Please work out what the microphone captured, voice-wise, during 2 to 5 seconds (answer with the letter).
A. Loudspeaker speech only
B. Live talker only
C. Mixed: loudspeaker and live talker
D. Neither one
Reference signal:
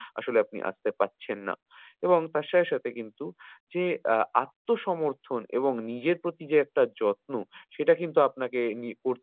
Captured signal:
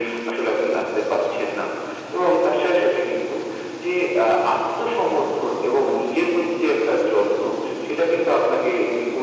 A